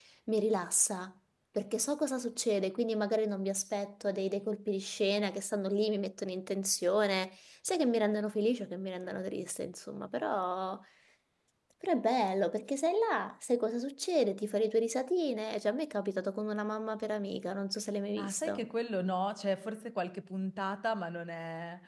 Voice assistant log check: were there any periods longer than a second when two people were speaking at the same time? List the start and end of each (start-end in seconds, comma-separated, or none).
none